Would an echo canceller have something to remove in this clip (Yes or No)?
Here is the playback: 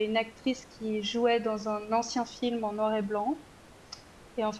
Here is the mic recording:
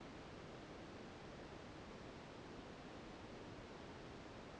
No